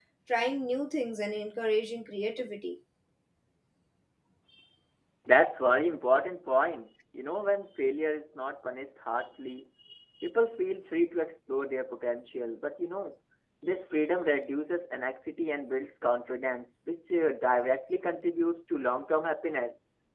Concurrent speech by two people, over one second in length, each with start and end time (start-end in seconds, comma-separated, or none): none